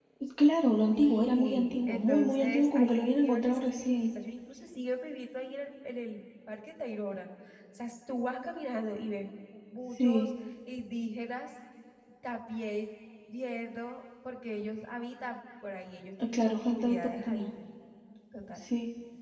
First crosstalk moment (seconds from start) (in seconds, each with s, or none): 0.9 s